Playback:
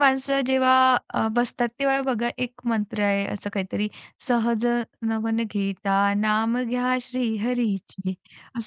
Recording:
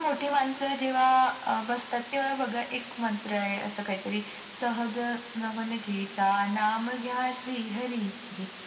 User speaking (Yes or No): No